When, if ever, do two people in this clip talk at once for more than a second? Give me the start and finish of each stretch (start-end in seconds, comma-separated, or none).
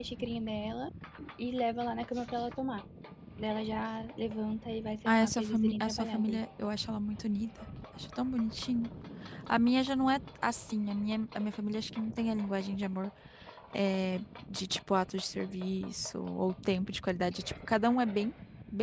5.0-6.4